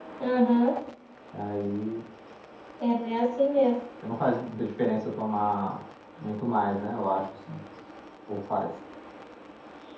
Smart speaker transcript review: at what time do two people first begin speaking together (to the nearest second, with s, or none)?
none